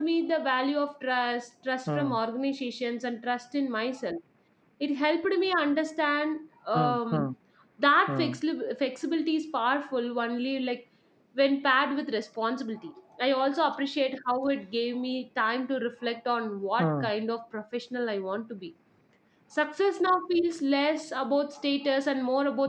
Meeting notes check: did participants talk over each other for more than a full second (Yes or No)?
No